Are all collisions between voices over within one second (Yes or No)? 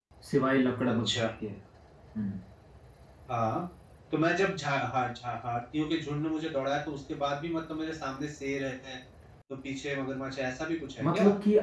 Yes